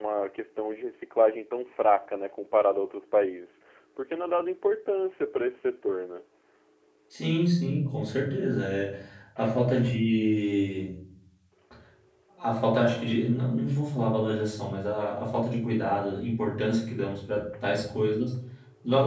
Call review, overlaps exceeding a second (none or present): none